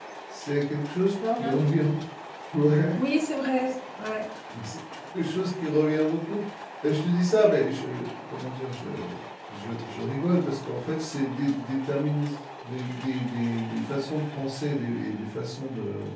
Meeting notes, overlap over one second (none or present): none